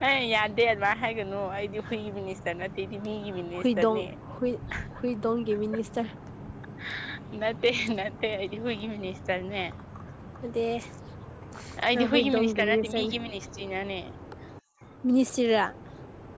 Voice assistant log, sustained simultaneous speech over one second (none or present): present